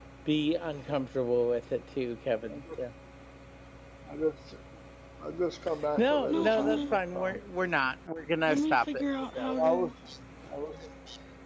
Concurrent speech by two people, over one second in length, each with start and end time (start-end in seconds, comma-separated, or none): 6.0-7.4, 8.5-9.9